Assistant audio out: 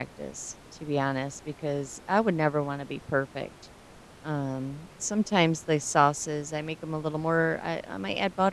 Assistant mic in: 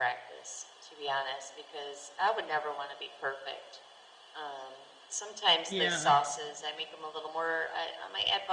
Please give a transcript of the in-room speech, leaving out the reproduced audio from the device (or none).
Yeah.